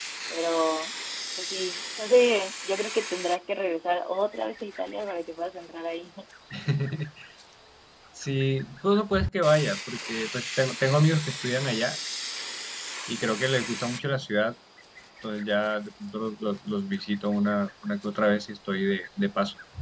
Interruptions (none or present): none